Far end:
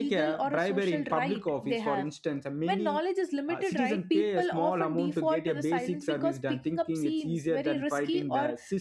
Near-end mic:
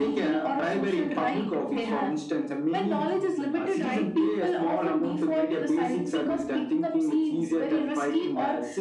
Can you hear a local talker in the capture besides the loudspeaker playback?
Yes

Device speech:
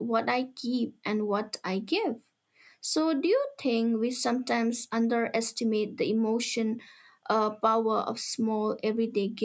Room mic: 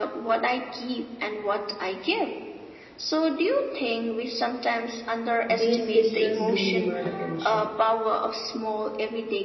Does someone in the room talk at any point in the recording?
Yes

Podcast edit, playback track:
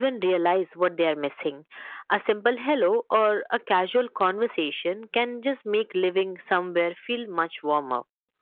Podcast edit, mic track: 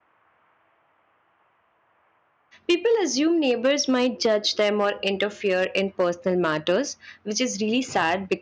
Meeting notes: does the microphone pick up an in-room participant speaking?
Yes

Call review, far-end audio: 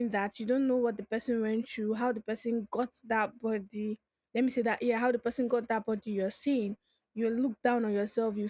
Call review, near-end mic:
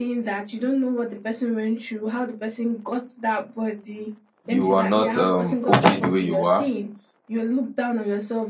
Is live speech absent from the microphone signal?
No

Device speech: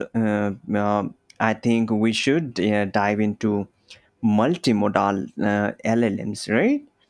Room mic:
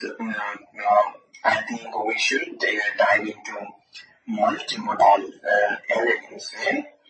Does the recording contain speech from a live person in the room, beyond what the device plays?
No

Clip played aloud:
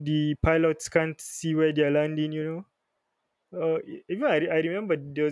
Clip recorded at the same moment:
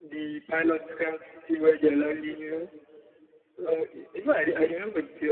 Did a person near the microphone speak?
No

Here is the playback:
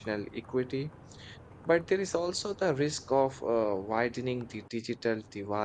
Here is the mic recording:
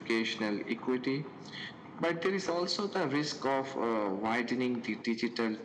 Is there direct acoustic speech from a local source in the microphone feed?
No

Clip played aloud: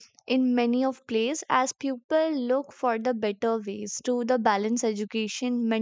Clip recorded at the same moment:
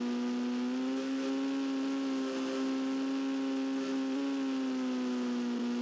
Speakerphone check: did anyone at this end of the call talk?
No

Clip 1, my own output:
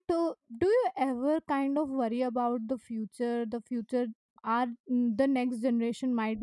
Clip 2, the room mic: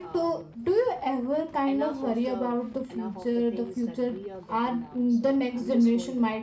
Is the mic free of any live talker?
No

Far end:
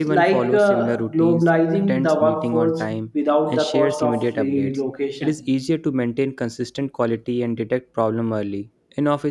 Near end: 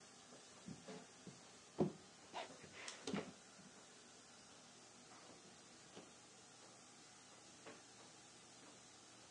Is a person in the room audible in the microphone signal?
No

